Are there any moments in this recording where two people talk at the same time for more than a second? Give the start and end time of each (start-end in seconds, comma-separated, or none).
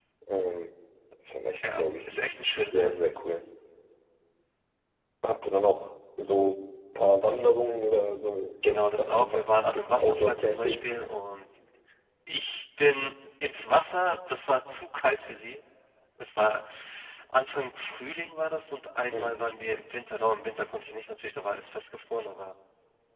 8.6-10.8